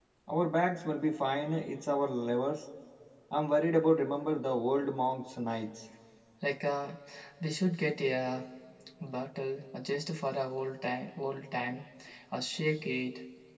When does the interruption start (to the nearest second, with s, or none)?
none